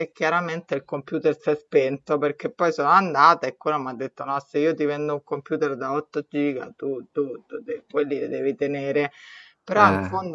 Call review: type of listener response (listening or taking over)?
listening